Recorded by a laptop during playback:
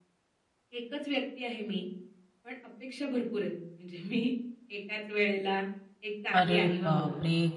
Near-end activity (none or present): present